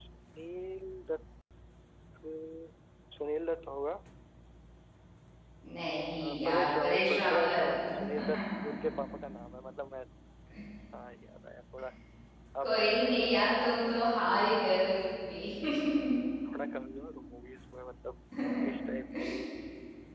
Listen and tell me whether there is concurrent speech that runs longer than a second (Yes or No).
Yes